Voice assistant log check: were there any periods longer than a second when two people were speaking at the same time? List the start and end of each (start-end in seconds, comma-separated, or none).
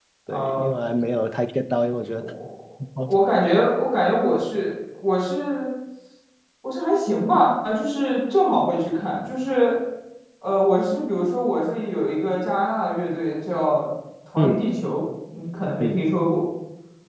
none